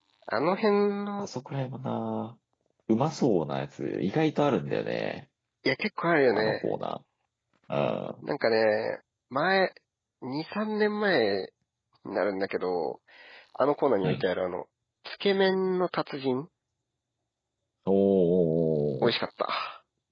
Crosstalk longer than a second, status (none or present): none